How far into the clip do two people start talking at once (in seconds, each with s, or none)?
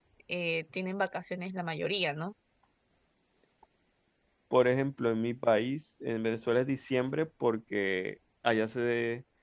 none